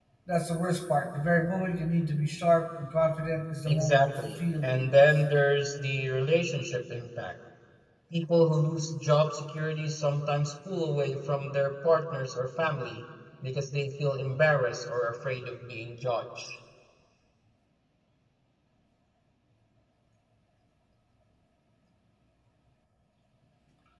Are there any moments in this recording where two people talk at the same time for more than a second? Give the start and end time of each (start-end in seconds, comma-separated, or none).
3.7-5.1